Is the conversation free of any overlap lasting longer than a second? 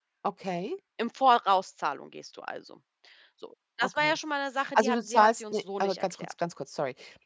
No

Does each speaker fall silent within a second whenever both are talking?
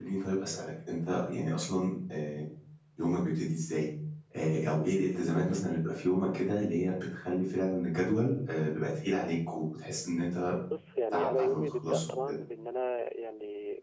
No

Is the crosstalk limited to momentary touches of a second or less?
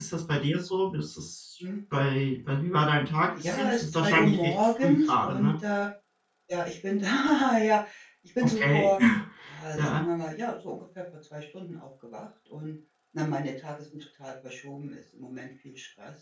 No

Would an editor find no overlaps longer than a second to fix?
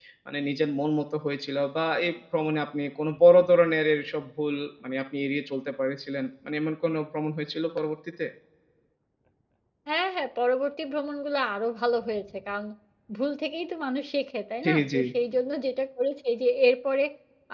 Yes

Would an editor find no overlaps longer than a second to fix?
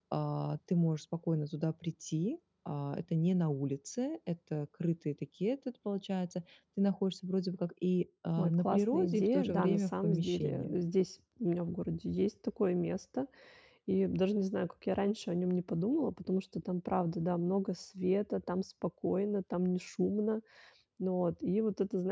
No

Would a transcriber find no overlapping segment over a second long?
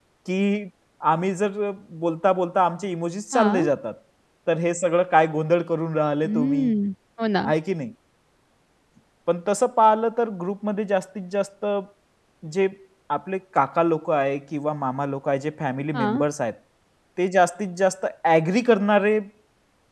Yes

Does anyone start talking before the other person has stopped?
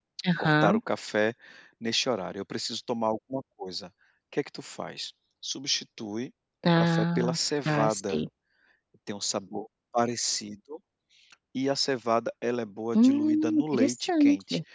Yes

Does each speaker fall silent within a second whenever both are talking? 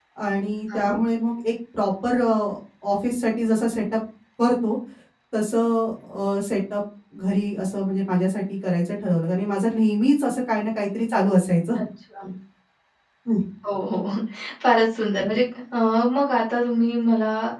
Yes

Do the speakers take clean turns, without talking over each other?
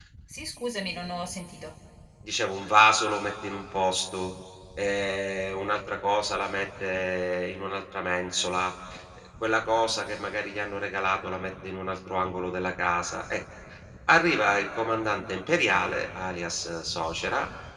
Yes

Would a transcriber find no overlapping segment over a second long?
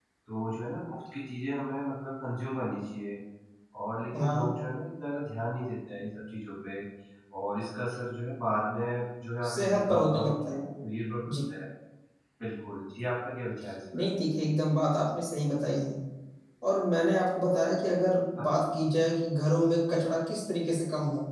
No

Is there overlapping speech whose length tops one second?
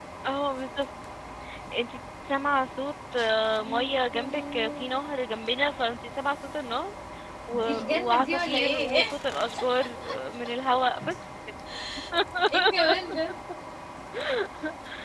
Yes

